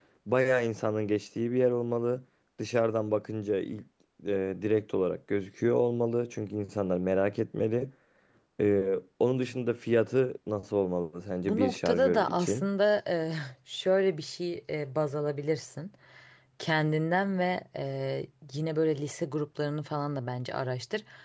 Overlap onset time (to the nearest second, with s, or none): 11 s